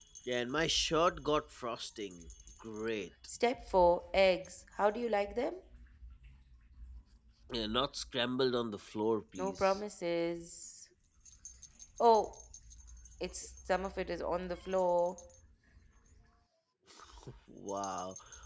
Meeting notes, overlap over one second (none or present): none